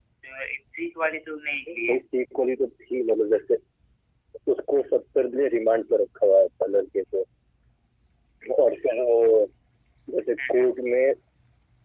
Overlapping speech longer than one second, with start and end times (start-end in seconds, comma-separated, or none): none